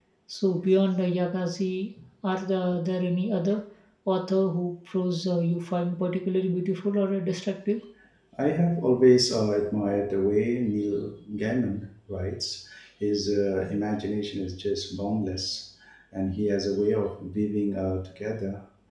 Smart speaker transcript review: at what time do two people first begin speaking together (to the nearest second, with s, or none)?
none